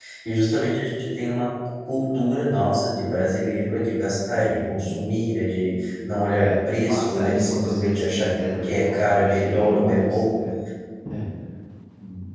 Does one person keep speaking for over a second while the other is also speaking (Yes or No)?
Yes